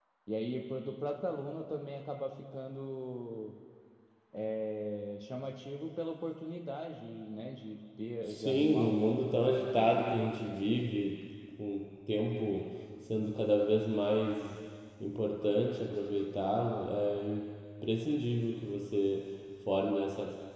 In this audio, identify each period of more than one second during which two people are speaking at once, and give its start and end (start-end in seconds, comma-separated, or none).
8.3-10.3